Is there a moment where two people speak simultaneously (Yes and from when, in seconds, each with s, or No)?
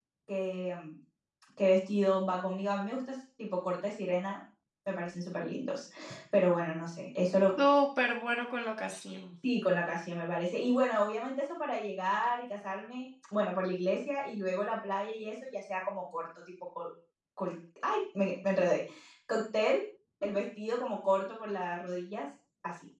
No